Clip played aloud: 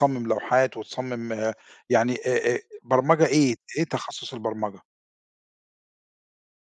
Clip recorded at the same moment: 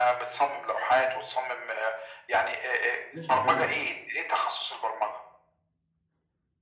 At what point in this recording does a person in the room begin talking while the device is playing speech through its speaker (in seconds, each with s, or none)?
3.2 s